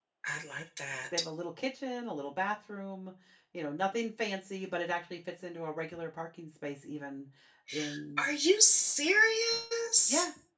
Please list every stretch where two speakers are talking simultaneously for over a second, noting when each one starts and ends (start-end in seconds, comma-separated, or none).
none